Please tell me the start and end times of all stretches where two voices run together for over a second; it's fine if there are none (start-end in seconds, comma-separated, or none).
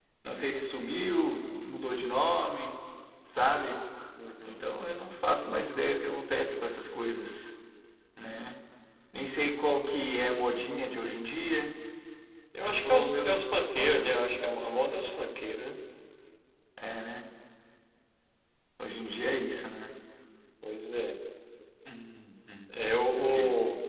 12.7-14.1